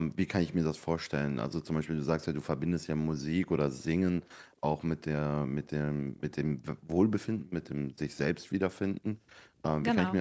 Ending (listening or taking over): listening